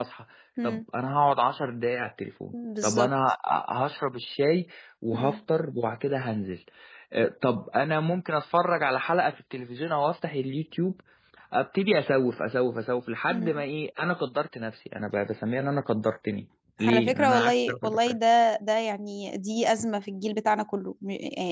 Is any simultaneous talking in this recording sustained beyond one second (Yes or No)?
Yes